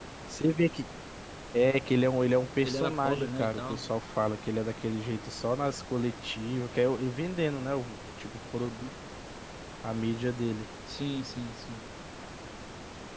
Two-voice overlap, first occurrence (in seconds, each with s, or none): 2.6 s